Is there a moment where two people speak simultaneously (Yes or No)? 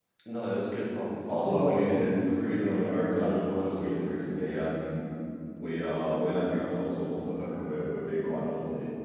Yes